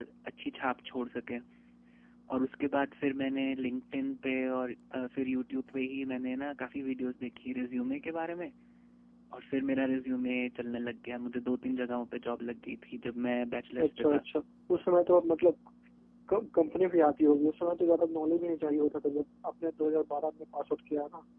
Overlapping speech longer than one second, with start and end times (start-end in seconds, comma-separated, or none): none